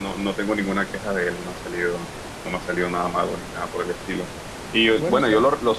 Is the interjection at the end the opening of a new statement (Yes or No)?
No